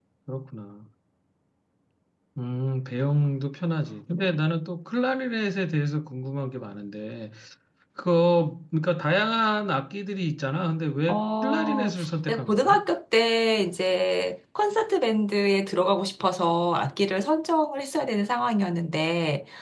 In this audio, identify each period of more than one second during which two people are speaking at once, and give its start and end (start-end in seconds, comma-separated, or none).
11.1-12.8